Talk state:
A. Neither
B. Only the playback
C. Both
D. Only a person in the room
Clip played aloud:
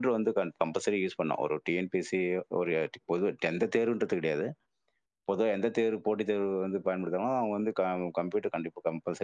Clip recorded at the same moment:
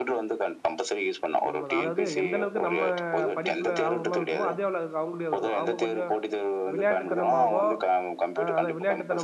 C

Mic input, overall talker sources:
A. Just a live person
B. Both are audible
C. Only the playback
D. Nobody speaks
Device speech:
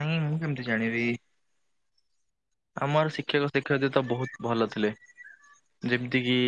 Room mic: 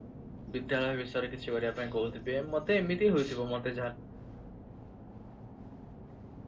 A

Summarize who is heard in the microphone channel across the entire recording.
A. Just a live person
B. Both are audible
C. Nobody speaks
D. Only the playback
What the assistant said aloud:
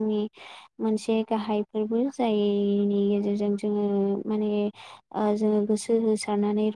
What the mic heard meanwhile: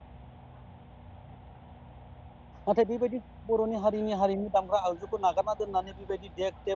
A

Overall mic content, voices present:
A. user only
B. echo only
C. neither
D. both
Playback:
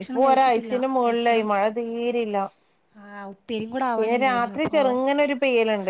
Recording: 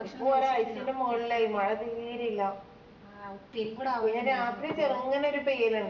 B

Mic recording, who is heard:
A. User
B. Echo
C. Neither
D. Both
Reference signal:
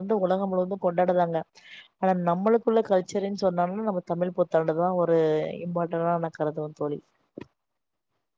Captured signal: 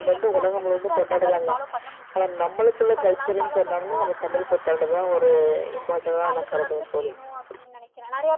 D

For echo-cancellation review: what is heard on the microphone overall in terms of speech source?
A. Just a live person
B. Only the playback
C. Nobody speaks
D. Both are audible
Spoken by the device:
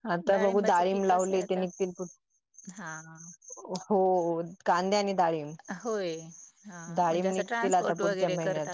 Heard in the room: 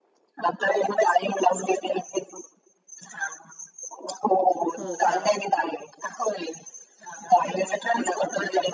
D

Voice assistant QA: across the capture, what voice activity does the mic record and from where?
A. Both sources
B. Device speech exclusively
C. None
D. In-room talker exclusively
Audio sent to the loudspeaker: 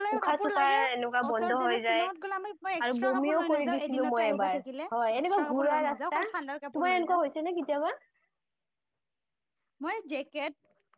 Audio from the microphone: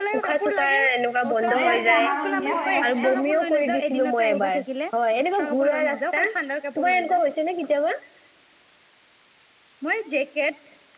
A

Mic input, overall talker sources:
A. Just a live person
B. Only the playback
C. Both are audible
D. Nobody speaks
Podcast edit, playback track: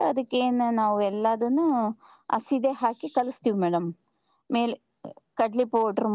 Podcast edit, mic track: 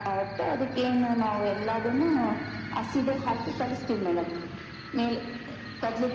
B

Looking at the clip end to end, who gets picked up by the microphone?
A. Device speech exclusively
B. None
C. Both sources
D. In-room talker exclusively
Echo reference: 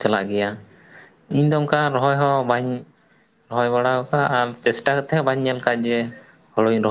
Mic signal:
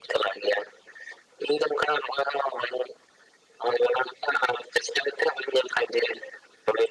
A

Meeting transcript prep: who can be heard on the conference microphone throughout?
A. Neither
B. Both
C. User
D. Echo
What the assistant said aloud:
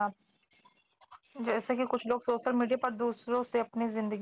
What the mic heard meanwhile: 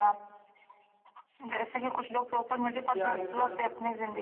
B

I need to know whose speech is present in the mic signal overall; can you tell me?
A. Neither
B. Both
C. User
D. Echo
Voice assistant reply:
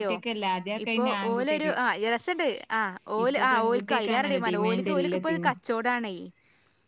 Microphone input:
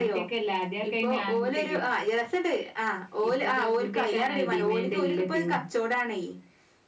D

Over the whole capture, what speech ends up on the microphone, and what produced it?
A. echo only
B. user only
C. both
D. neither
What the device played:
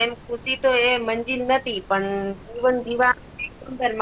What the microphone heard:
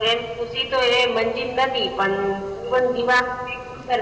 A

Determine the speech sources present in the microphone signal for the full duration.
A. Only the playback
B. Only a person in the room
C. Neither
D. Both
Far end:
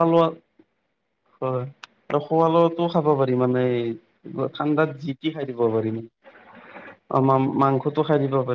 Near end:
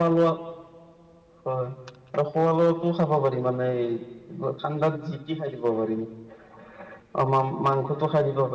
A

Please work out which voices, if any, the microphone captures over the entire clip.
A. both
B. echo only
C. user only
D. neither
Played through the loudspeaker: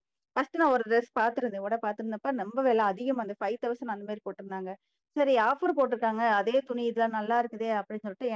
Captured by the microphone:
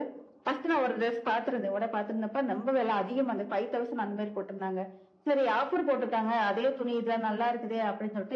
B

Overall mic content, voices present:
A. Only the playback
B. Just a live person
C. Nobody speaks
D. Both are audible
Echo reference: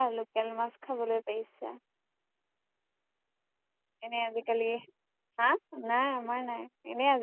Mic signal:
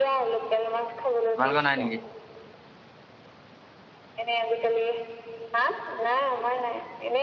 D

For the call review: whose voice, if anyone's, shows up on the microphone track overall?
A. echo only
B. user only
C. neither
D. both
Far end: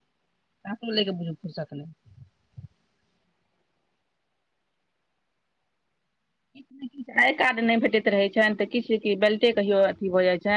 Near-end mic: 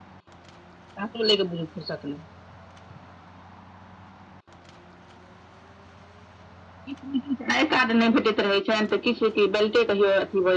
A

